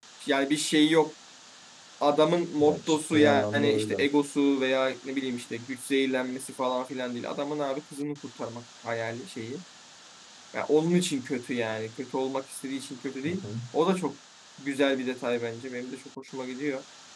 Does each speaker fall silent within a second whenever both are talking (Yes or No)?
No